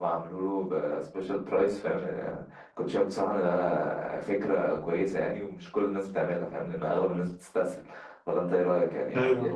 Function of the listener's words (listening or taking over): taking over